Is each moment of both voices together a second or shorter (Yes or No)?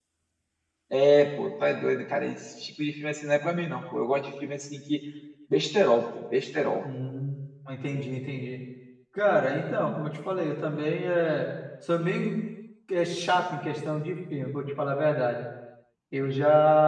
Yes